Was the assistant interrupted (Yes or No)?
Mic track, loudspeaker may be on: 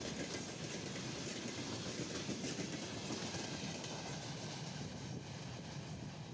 No